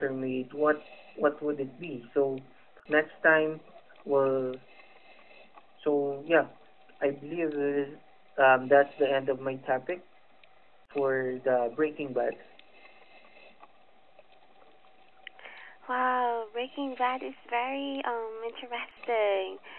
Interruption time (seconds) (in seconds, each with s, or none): none